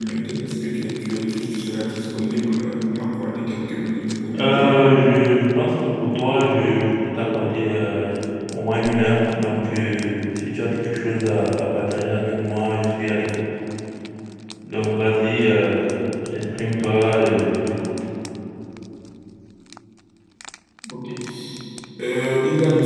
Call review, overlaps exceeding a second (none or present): none